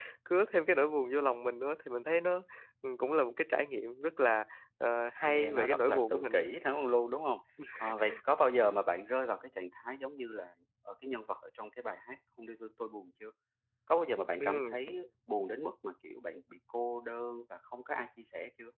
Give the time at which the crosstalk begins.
5.2 s

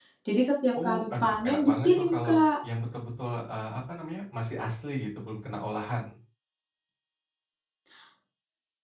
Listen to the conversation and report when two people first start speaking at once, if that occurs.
0.8 s

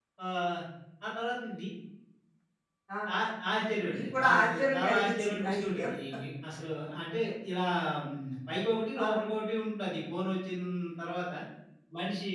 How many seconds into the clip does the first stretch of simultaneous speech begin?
3.9 s

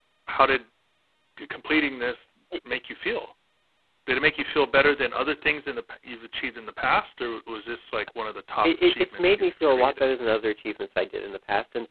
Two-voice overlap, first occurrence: 8.6 s

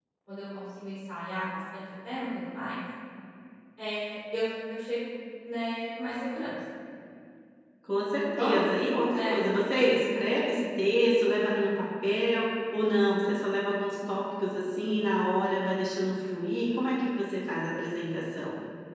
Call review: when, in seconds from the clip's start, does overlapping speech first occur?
8.3 s

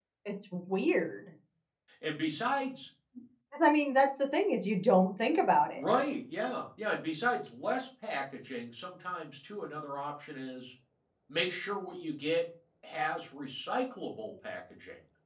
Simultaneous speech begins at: none

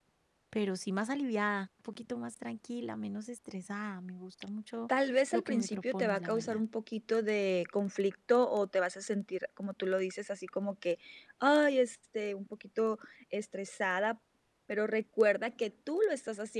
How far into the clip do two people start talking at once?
5.3 s

